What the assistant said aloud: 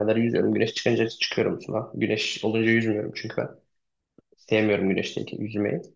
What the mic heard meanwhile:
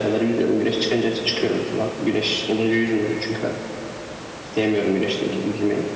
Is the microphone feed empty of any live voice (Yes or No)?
Yes